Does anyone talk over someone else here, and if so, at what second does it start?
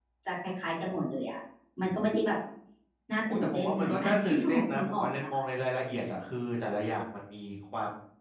3 s

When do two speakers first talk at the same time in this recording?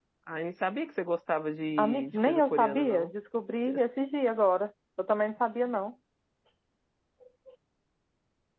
2 s

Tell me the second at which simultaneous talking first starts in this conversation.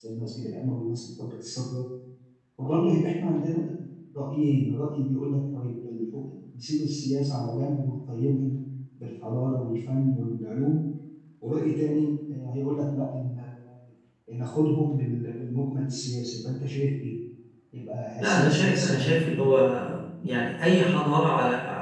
18 s

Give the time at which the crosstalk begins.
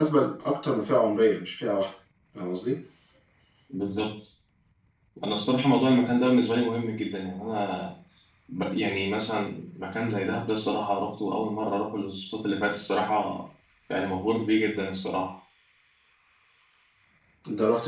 none

